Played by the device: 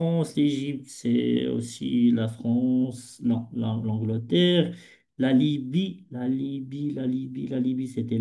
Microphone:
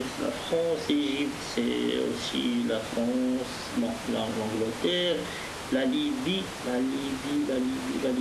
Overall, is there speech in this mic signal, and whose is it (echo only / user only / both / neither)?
echo only